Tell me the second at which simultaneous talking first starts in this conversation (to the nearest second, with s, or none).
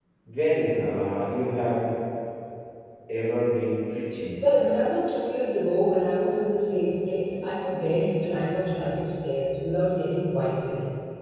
none